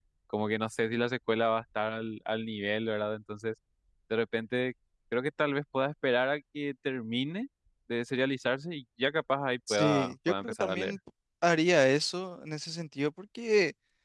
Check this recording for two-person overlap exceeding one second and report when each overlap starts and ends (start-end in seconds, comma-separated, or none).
9.7-10.9